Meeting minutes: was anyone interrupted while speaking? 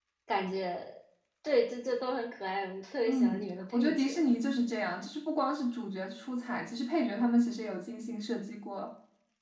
Yes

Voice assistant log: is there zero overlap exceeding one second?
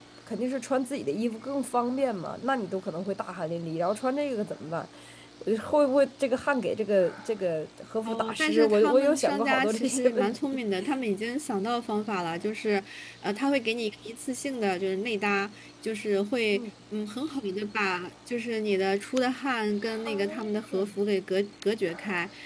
No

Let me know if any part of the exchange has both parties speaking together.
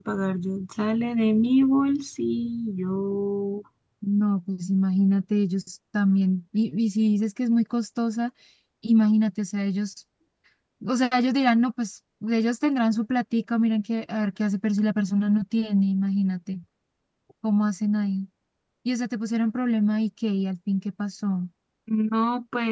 No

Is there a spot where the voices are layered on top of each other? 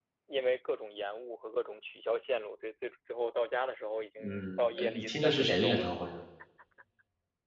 Yes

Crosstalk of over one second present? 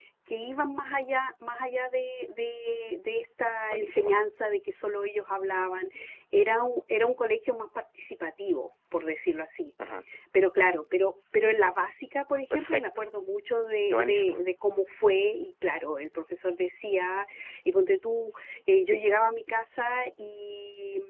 No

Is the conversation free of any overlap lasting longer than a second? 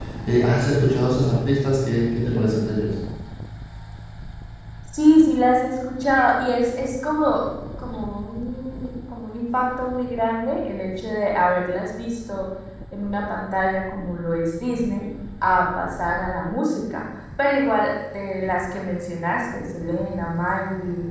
Yes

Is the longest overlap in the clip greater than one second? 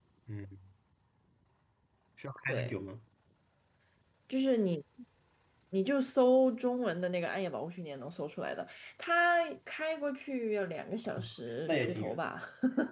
No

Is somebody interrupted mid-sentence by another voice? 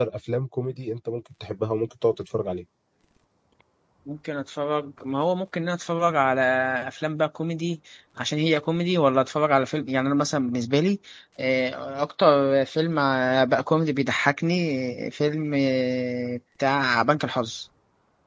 No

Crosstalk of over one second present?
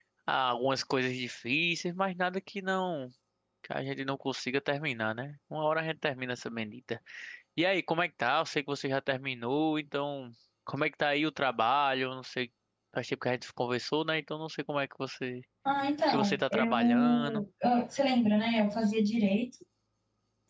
Yes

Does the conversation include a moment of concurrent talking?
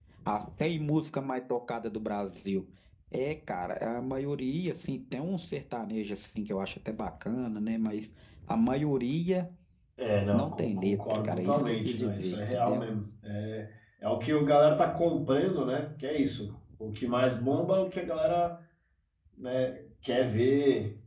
Yes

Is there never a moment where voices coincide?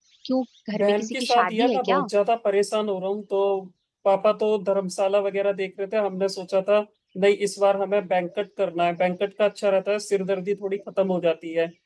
No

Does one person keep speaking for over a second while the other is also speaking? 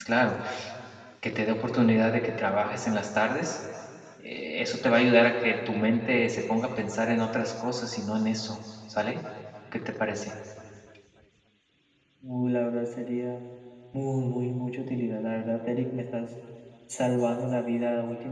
No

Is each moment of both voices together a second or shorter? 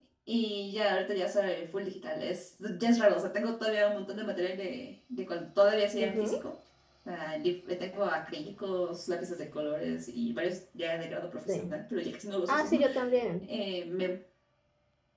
Yes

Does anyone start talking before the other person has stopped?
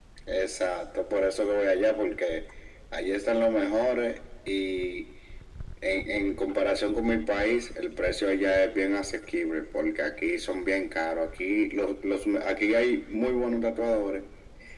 No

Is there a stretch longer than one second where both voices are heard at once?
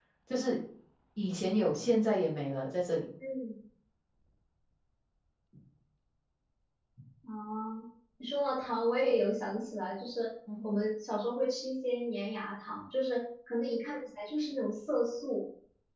No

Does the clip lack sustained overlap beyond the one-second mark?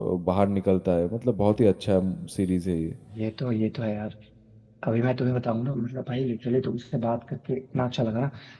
Yes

